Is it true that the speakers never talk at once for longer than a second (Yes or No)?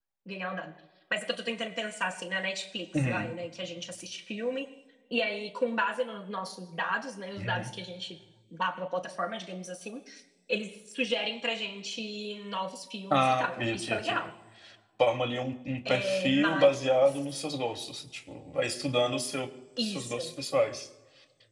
No